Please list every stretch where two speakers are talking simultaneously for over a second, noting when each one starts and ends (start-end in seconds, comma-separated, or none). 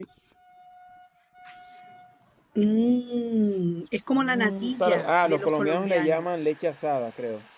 4.2-6.2